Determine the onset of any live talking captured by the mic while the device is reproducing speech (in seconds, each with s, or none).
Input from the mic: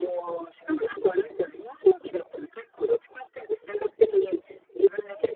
none